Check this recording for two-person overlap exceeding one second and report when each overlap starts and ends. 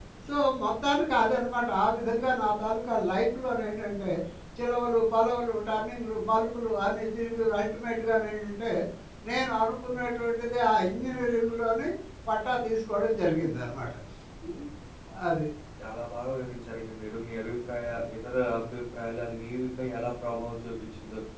none

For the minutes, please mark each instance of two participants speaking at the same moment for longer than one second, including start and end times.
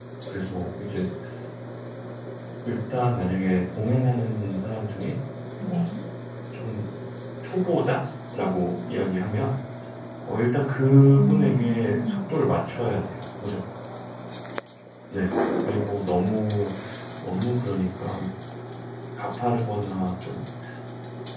11.2-12.4

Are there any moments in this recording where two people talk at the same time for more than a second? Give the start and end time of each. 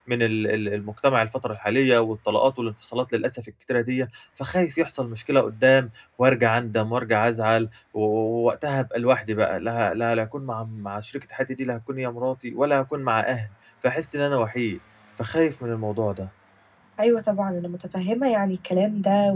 none

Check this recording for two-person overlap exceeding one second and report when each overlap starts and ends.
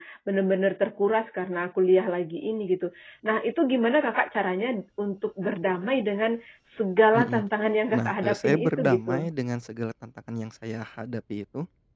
7.9-9.3

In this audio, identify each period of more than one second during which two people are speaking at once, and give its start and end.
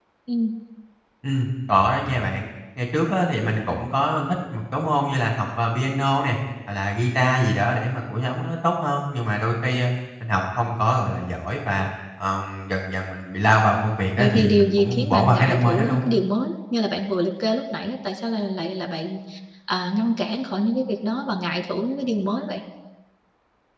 14.2-16.1

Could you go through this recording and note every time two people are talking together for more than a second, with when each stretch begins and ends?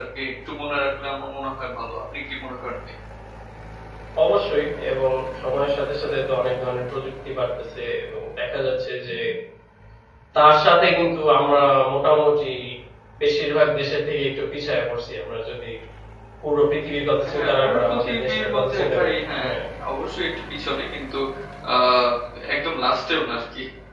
17.3-19.5

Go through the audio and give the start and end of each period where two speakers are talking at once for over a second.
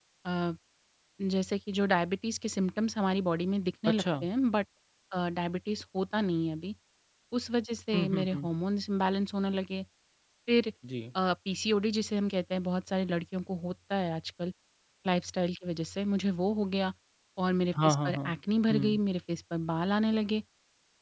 none

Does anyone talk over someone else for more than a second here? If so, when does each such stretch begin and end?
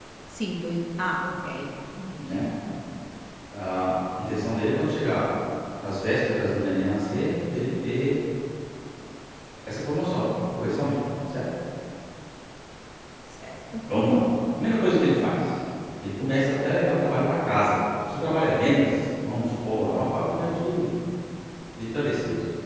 none

